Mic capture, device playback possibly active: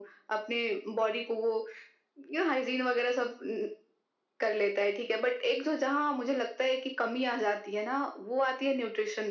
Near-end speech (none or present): none